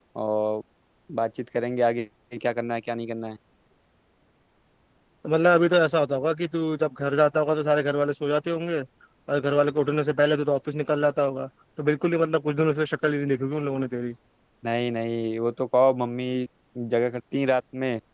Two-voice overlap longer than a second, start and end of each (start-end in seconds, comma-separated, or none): none